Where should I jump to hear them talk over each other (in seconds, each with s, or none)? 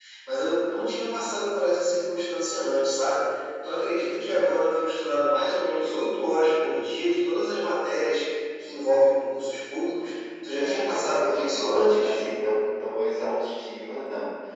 10.5 s